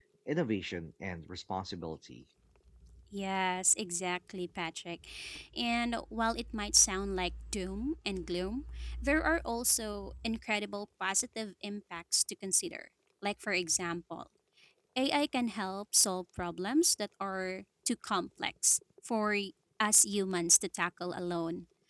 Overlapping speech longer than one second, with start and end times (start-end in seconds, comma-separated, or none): none